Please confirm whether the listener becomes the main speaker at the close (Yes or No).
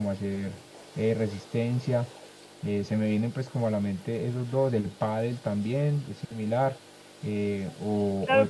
Yes